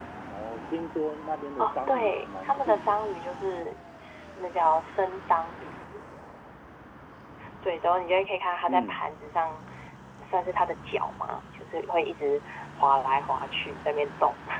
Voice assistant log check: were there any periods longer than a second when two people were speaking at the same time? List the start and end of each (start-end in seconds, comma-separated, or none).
1.6-3.0